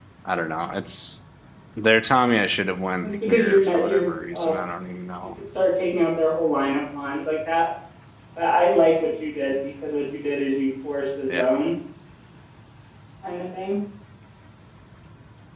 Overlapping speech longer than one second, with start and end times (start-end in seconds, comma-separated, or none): 3.0-4.5